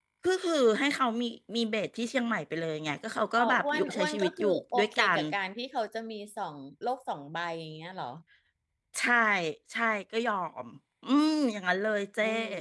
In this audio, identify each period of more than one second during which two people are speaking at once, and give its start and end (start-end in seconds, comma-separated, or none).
3.4-5.2